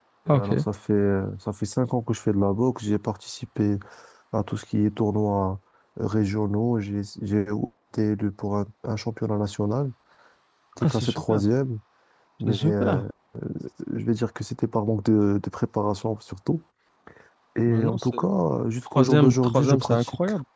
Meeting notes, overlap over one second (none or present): present